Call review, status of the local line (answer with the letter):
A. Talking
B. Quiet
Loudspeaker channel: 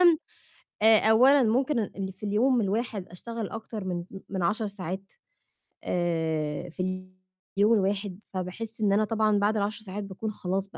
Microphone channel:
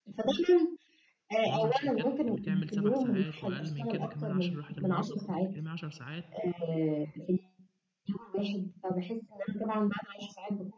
A